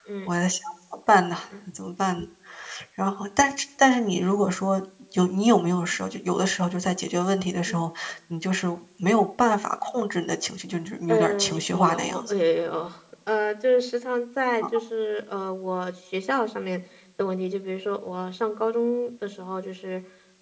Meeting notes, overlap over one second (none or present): present